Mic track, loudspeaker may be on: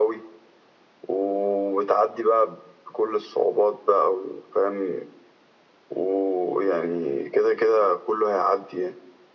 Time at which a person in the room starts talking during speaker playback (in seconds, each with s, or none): none